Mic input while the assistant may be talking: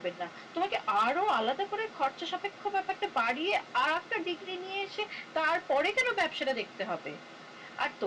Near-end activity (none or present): none